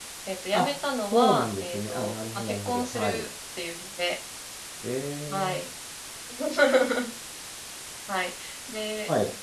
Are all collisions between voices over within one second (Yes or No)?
No